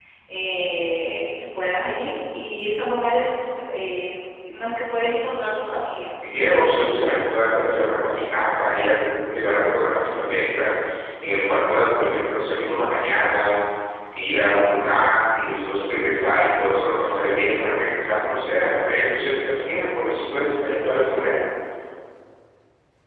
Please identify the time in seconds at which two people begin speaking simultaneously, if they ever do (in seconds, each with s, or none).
none